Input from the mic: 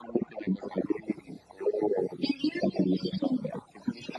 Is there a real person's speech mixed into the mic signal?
No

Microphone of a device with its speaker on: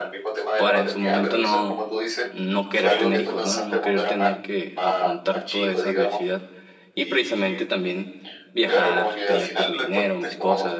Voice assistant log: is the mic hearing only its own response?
No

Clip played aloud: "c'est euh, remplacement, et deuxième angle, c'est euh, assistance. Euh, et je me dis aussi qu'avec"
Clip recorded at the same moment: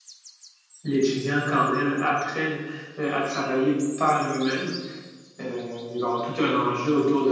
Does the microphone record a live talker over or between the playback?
Yes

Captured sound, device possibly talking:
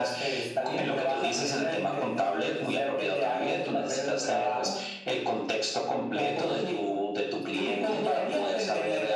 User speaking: No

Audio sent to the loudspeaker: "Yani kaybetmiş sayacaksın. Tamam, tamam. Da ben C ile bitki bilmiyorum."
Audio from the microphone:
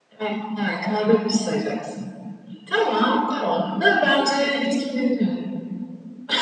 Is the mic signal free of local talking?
Yes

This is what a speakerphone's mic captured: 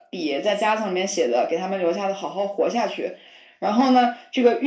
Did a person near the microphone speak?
No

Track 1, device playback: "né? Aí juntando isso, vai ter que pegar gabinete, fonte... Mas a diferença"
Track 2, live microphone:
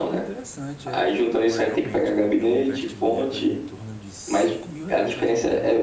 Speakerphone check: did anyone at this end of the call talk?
Yes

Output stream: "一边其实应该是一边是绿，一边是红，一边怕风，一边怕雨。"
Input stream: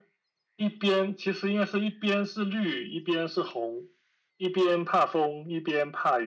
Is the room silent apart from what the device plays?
Yes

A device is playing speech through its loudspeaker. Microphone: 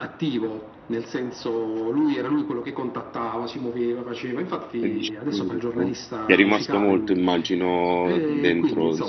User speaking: Yes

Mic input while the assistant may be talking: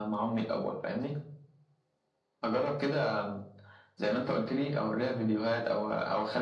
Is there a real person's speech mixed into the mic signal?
No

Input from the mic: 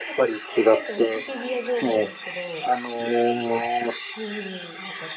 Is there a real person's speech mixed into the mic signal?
Yes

